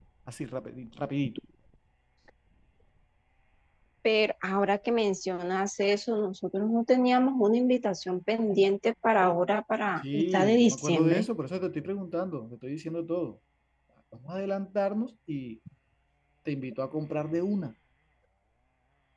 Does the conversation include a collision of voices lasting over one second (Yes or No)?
Yes